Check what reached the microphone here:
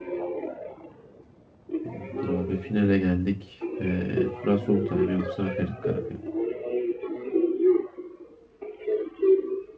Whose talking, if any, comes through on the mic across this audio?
both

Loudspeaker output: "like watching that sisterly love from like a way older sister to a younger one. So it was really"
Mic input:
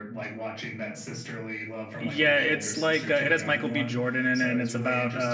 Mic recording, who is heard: both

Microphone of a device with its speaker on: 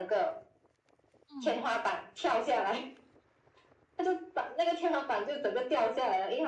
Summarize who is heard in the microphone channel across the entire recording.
both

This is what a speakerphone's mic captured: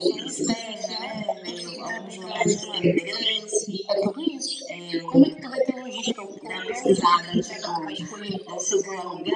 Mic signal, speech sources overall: echo only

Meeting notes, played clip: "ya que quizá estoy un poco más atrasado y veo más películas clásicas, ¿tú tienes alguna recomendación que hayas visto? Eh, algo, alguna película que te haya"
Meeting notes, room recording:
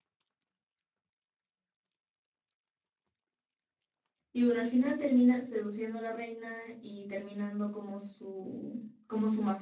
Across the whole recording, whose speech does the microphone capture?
user only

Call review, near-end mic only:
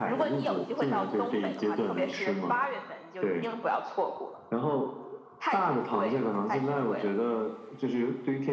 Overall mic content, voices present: echo only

